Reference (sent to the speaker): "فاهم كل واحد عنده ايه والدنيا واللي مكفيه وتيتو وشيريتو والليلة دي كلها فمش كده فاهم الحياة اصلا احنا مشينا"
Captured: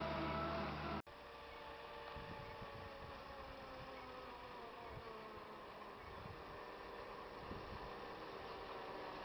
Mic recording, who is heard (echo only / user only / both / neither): neither